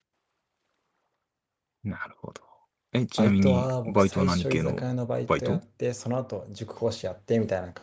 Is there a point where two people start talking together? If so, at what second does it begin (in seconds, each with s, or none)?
3.2 s